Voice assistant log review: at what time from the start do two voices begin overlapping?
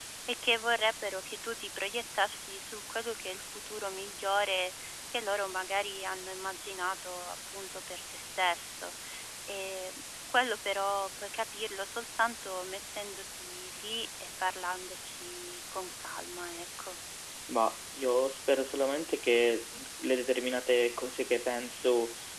none

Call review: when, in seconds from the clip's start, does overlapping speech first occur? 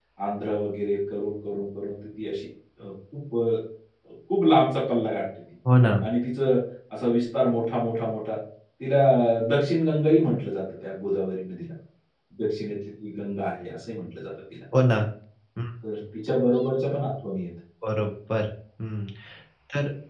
none

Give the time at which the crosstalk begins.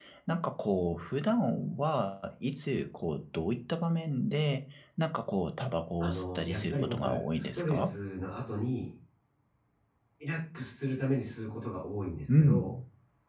6.0 s

